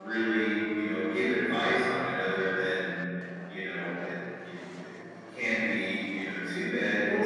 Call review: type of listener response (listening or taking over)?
listening